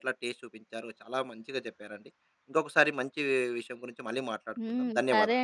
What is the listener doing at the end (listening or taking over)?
taking over